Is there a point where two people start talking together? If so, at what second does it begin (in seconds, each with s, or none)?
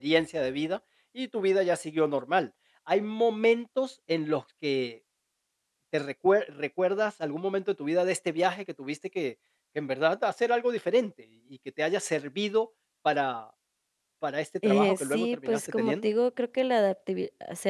14.6 s